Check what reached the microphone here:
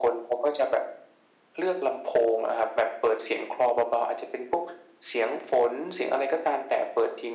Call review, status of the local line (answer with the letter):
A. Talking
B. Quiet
B